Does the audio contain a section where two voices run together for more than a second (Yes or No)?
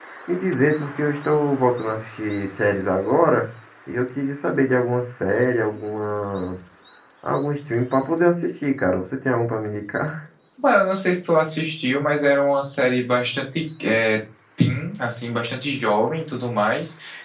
No